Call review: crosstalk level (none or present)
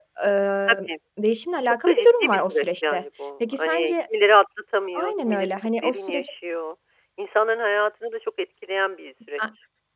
present